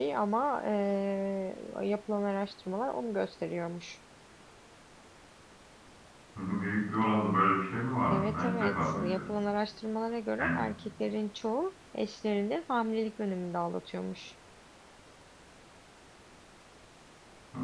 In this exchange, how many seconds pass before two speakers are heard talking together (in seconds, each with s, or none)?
8.1 s